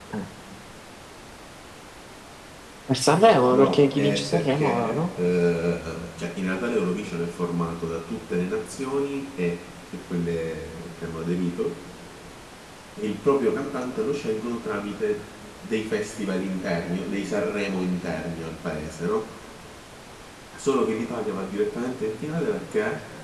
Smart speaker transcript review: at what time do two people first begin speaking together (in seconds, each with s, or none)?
3.5 s